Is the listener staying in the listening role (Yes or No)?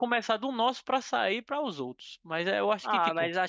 No